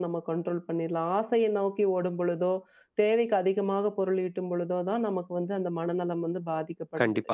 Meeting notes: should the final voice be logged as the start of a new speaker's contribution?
Yes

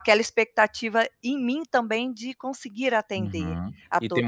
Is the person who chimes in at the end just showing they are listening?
No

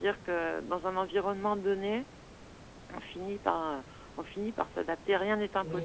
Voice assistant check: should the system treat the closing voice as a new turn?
Yes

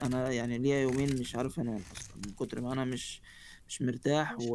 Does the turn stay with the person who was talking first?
Yes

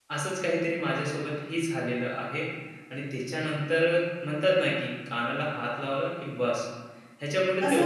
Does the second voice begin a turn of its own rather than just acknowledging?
Yes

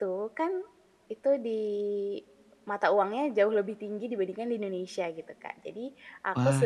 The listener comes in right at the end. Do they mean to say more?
No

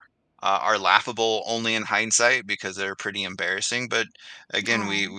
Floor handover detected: No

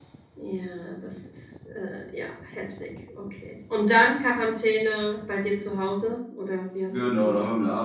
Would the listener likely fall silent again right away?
No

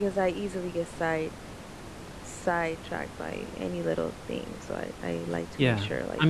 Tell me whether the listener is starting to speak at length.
Yes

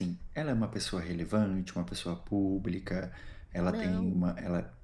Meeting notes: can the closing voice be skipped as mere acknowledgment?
Yes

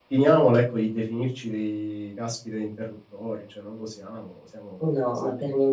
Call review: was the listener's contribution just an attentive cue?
No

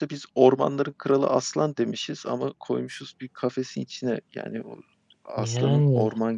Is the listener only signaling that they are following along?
Yes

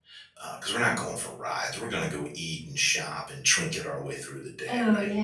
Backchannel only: No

